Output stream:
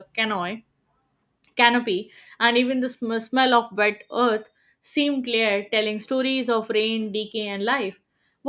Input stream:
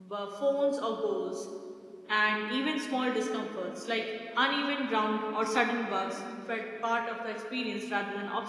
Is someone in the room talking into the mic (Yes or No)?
Yes